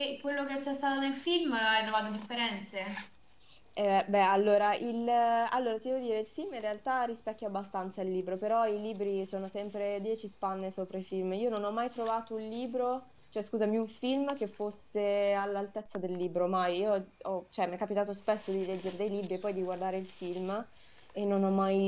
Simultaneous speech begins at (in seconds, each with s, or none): none